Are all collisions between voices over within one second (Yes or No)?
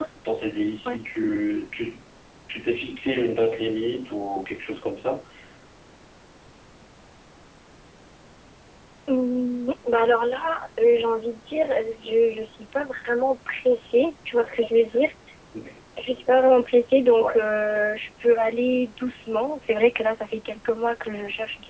Yes